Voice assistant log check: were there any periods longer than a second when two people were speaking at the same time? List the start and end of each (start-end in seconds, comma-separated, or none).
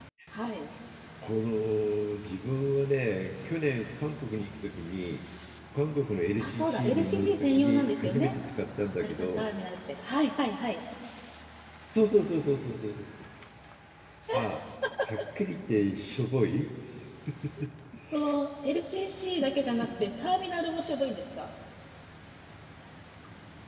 6.4-8.3